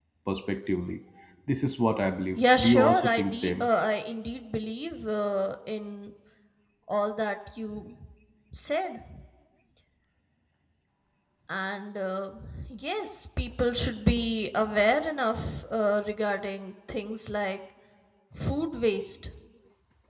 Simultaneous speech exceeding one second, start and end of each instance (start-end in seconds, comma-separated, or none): 2.3-3.7